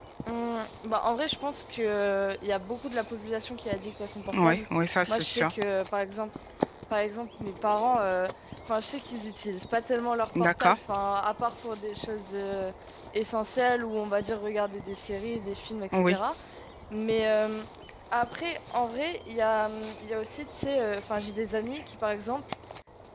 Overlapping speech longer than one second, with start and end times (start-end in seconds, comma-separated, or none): none